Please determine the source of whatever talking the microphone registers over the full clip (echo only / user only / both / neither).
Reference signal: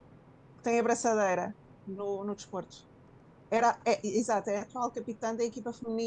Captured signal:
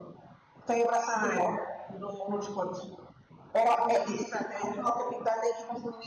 echo only